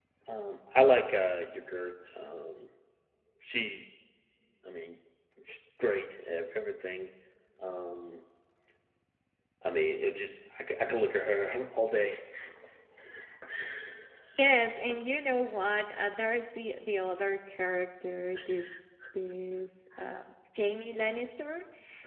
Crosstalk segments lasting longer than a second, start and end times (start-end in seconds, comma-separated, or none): none